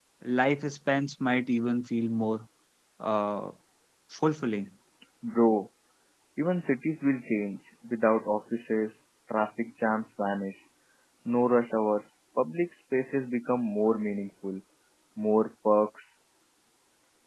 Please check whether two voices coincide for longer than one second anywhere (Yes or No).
No